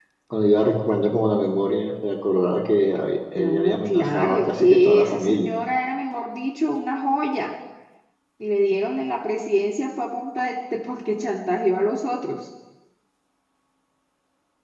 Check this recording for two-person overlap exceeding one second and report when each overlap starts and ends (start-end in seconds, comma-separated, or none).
3.4-5.5